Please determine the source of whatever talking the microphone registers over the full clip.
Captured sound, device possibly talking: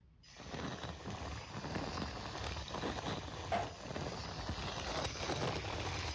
neither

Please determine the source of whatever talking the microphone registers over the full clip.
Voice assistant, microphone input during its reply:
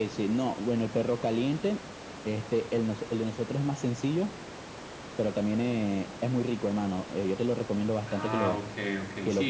both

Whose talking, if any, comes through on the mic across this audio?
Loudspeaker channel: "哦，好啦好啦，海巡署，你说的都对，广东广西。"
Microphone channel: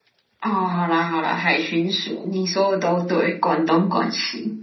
echo only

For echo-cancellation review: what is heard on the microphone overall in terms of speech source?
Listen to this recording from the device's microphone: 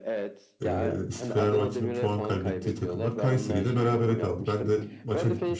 both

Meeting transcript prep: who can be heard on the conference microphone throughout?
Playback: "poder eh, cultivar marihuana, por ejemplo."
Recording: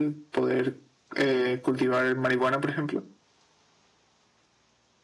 echo only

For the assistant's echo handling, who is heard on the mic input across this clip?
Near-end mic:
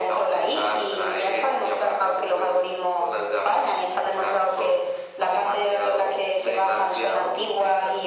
echo only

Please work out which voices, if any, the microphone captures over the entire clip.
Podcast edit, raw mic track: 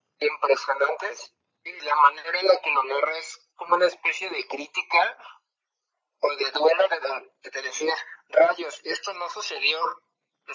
echo only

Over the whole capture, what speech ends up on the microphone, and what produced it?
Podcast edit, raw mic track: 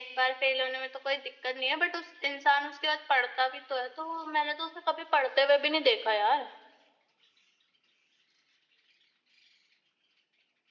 echo only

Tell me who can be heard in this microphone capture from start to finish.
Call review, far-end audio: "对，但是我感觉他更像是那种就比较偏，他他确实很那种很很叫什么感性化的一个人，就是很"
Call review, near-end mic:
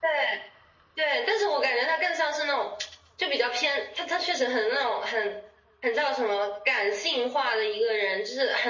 echo only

